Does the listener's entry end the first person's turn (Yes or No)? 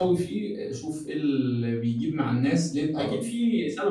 No